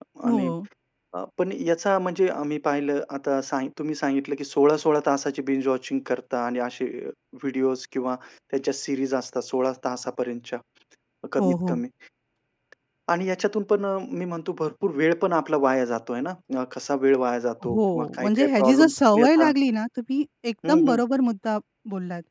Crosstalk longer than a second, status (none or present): present